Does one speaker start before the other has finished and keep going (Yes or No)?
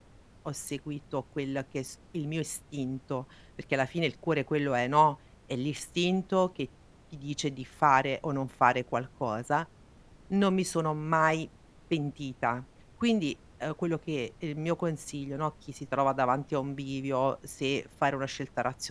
No